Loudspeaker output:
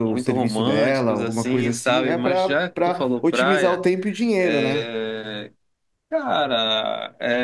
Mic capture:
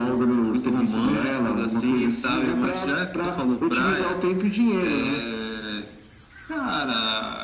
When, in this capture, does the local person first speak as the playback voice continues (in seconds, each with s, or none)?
none